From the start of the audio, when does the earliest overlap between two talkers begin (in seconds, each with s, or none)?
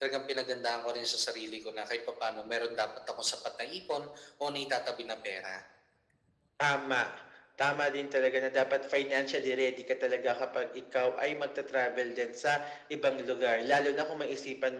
none